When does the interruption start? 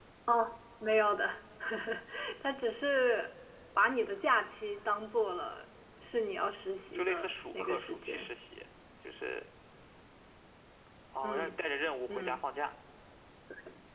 7 s

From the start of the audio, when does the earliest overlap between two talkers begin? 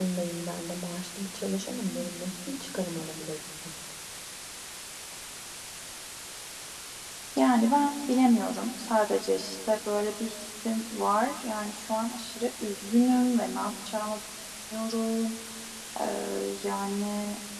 none

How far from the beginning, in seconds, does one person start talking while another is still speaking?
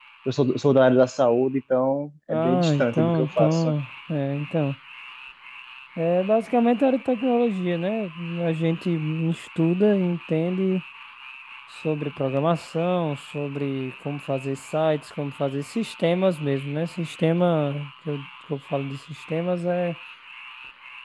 2 s

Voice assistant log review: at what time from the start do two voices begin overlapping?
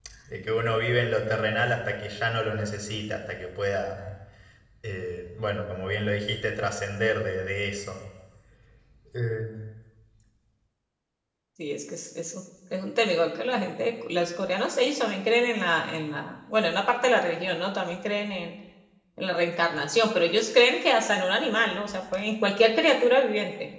none

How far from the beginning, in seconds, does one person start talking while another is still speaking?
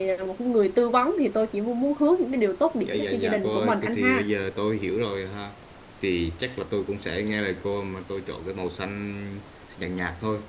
3 s

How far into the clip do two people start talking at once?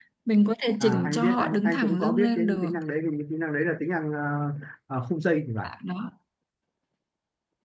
1 s

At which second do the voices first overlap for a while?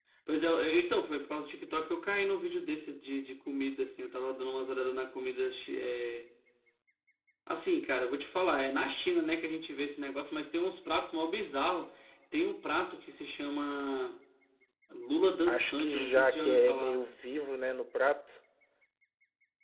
15 s

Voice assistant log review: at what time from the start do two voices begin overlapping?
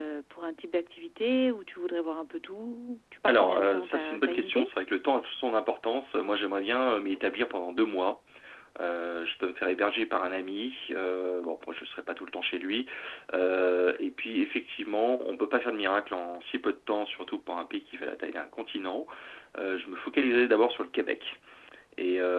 3 s

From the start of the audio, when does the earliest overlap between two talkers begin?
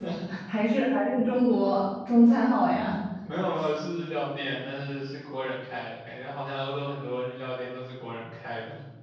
none

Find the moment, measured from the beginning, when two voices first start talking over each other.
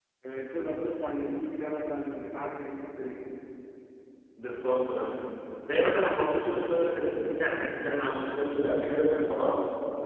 none

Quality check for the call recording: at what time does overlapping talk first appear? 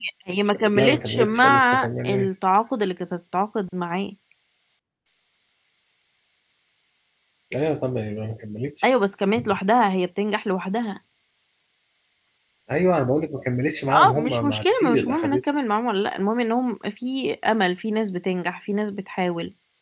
1 s

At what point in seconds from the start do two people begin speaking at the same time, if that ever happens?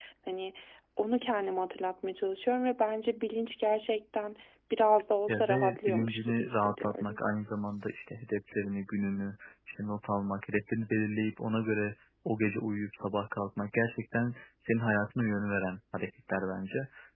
5 s

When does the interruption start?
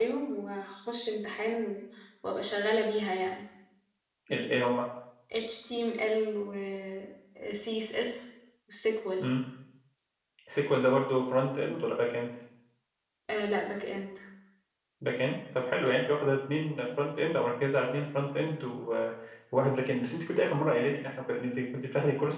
none

